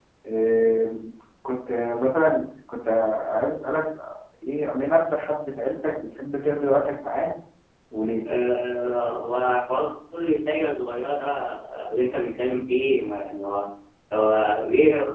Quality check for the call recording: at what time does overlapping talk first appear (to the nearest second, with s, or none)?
none